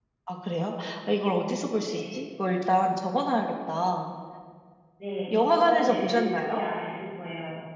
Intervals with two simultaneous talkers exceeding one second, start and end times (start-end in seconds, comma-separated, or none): 5.3-6.6